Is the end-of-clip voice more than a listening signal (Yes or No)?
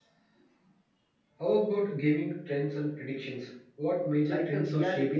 Yes